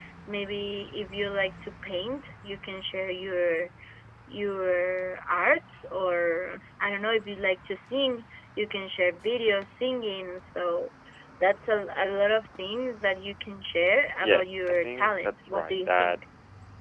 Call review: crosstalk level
present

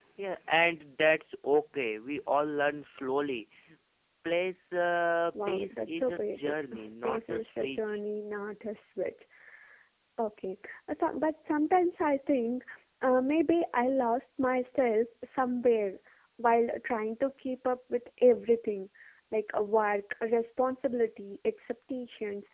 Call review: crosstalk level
present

